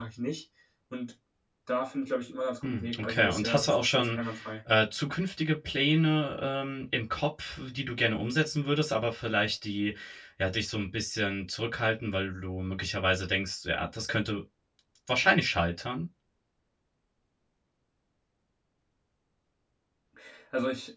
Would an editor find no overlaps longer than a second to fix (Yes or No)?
No